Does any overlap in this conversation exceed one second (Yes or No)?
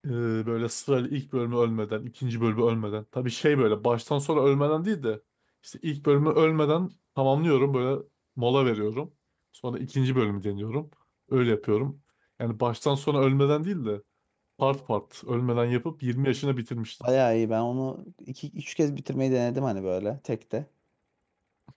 No